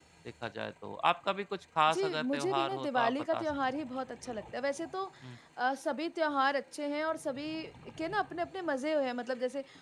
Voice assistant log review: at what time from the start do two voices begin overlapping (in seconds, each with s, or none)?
1.9 s